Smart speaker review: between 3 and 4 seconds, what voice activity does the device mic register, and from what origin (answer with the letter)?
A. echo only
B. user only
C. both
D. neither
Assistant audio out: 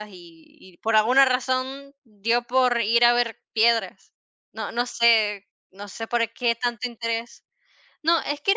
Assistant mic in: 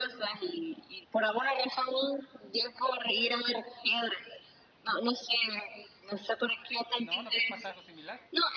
A